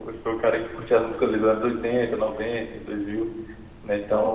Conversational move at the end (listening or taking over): taking over